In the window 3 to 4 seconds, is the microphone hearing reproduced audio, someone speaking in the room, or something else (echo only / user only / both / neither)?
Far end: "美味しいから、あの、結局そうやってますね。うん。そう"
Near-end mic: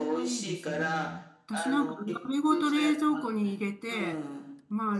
both